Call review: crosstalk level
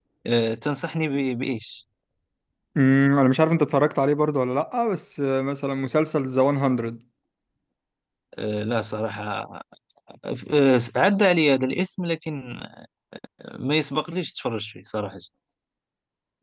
none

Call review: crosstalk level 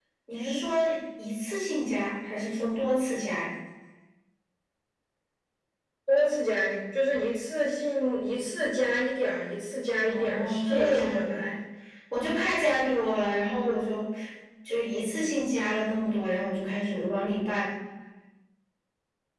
present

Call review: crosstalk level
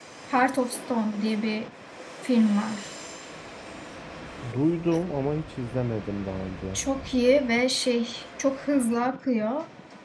none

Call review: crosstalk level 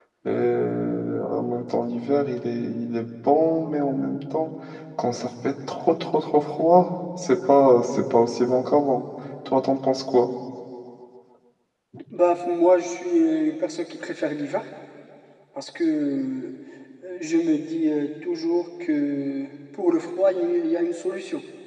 none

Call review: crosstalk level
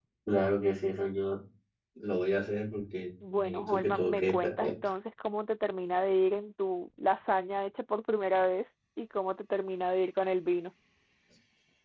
present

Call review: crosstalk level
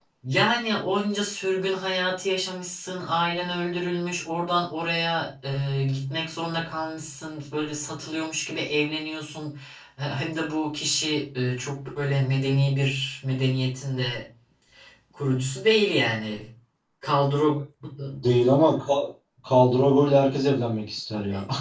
none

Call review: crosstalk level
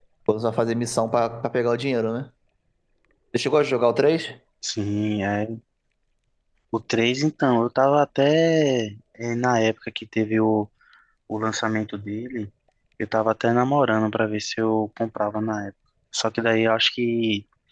none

